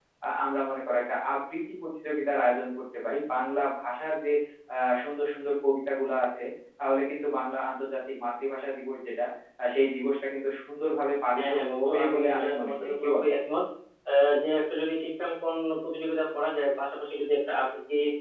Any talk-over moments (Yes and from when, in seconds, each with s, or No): Yes, from 11.4 s